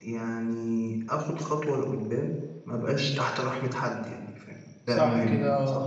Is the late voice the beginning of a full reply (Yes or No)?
Yes